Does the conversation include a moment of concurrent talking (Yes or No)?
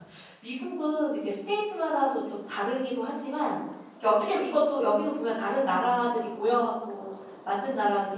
No